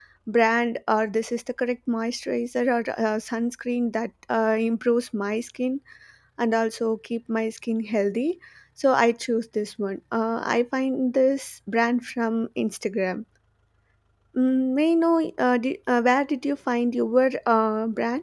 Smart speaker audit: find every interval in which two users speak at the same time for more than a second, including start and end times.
none

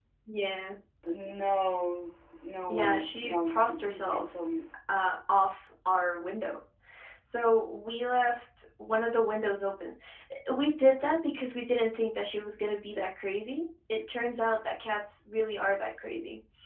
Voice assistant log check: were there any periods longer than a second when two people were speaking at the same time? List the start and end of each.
2.7-4.2

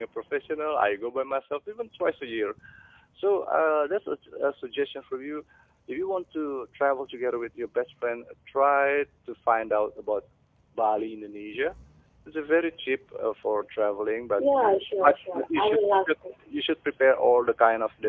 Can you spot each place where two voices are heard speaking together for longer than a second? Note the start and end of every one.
14.4-16.1

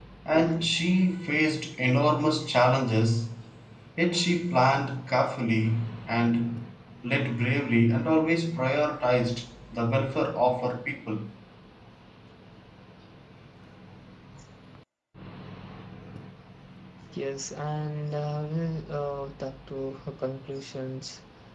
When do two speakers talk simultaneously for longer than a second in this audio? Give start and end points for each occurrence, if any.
none

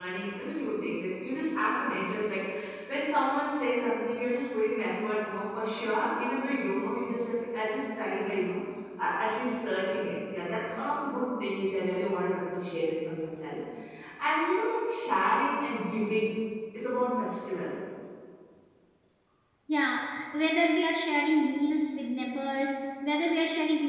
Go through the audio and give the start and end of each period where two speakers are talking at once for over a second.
none

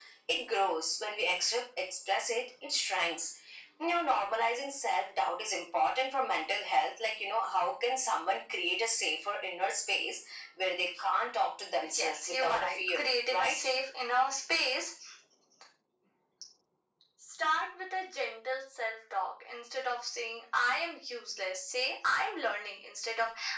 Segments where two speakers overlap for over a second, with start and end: 11.9-13.6

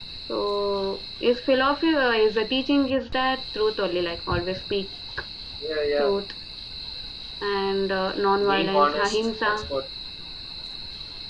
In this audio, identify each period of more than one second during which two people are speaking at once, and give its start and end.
8.4-9.7

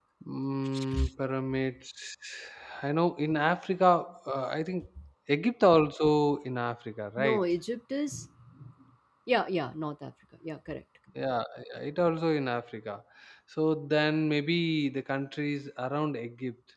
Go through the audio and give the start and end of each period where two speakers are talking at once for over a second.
none

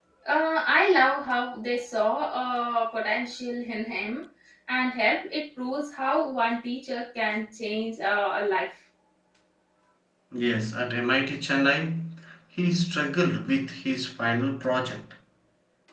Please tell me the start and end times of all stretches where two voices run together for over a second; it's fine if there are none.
none

